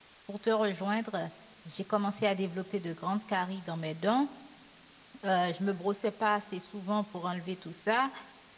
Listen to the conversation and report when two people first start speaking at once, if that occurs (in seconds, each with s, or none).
none